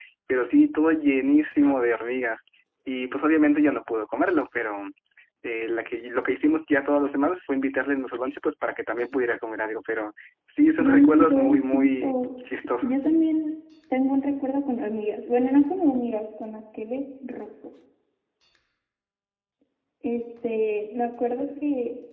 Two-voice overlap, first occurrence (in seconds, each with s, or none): 10.8 s